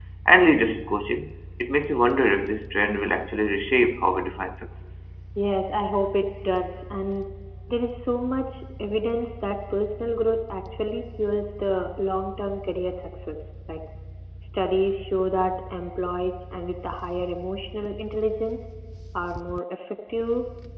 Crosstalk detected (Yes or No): No